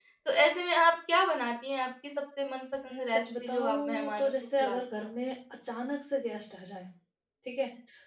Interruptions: present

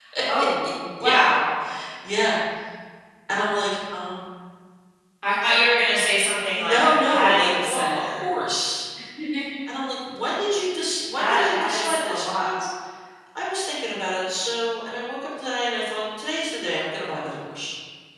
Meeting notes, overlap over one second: present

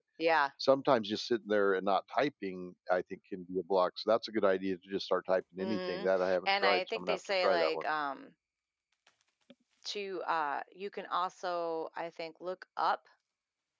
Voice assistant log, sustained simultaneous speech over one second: present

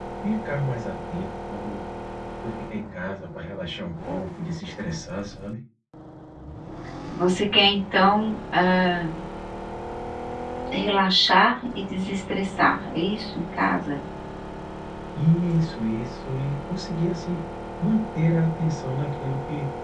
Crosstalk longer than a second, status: none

